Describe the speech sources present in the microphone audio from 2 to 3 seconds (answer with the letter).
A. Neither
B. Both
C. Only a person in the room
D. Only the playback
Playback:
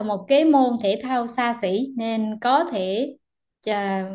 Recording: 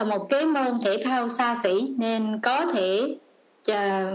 D